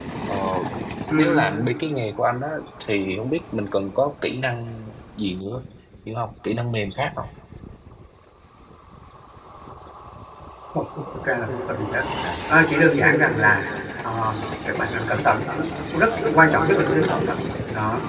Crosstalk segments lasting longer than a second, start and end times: 16.1-17.3

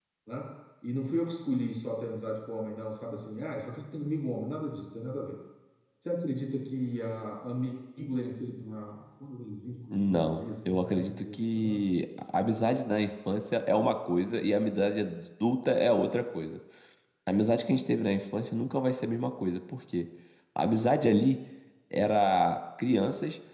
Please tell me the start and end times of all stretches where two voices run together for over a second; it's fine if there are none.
9.9-11.8

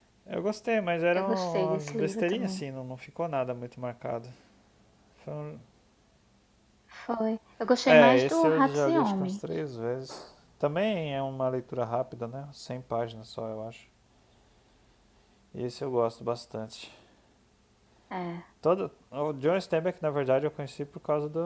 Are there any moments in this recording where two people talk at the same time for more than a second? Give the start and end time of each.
1.2-2.6, 7.8-9.4

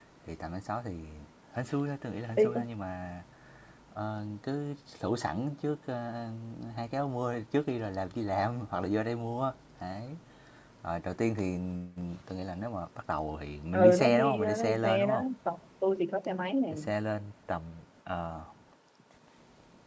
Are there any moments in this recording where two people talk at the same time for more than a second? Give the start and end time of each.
13.8-15.2

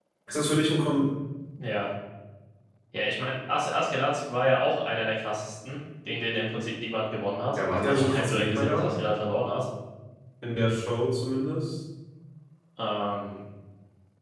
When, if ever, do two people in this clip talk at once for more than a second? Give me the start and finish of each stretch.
7.5-8.8

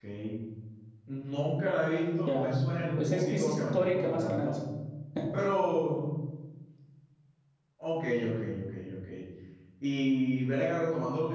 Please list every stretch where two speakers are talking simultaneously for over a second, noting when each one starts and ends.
3.0-4.5

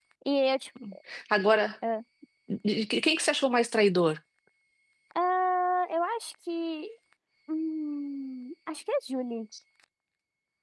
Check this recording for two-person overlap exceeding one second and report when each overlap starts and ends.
none

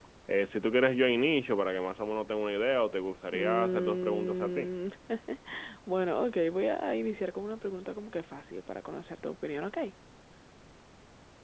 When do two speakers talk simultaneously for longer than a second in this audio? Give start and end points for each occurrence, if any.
3.3-4.7

